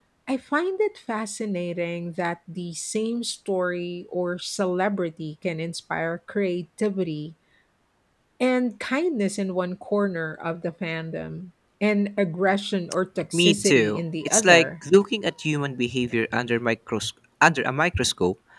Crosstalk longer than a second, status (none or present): present